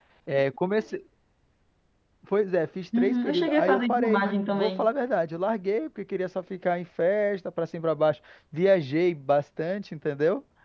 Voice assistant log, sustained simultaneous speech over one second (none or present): present